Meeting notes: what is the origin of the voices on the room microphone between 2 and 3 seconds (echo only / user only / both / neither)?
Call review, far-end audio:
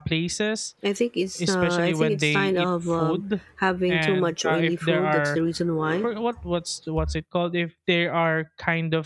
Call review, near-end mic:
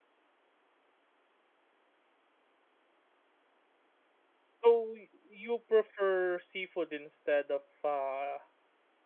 neither